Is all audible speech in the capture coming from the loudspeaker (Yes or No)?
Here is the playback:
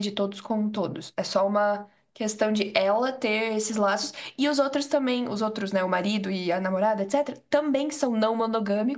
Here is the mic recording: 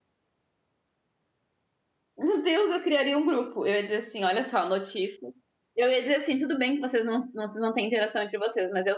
No